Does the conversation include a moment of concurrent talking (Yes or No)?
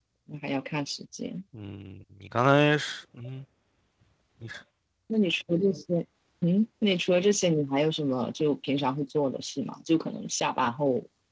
No